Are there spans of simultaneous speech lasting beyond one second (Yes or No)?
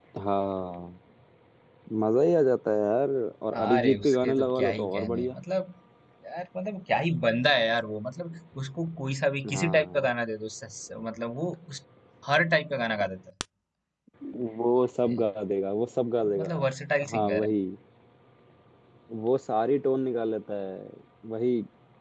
Yes